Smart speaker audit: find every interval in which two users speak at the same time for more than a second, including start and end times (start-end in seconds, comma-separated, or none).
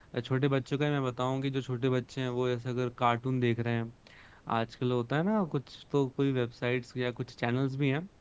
none